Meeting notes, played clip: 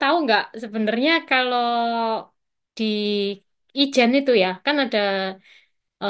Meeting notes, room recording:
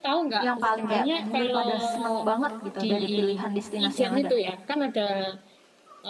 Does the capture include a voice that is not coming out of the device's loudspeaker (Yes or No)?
Yes